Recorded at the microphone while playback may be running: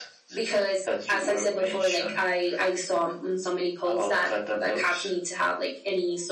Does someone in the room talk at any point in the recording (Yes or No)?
No